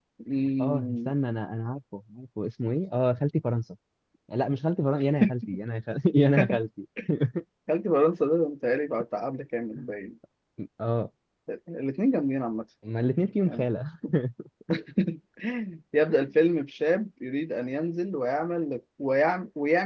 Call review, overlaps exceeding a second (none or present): none